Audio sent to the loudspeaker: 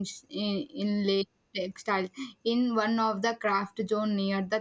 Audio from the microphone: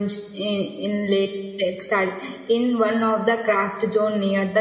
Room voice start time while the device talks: none

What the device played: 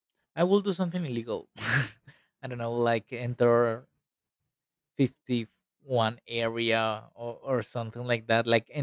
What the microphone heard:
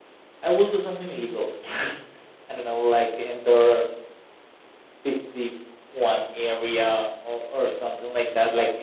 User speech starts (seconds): none

